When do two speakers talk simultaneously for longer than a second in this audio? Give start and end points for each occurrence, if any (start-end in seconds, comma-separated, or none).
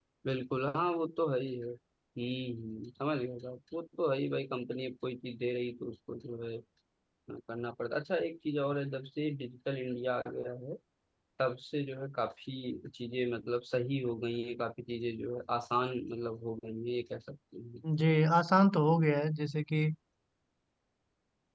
none